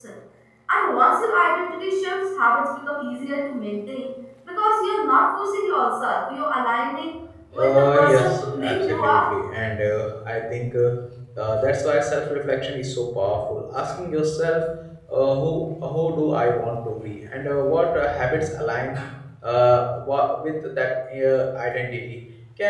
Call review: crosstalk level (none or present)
present